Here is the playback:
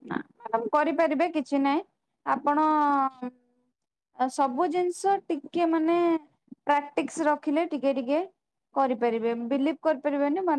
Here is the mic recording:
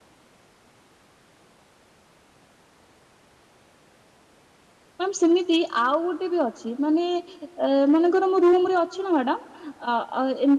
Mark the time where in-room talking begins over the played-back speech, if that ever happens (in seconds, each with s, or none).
5.0 s